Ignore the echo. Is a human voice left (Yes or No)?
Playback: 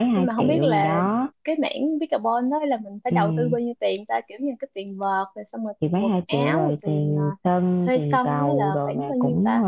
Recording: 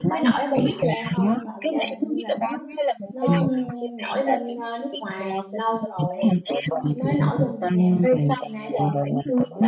Yes